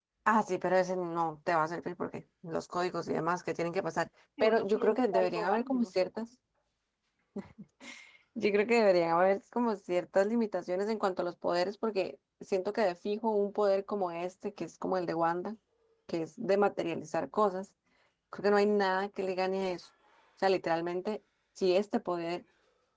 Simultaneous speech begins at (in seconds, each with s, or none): 4.4 s